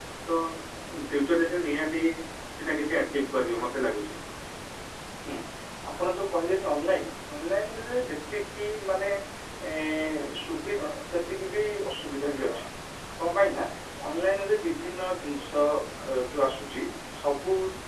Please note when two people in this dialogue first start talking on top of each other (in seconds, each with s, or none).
none